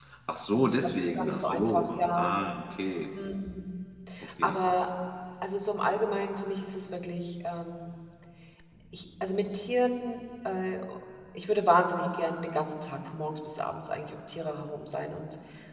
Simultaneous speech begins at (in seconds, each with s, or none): 0.5 s